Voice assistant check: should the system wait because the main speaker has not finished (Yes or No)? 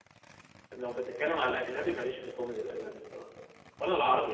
Yes